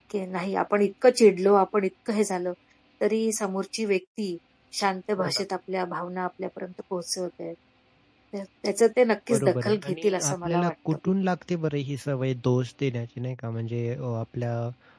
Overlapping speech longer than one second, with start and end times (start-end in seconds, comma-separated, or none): 9.3-10.7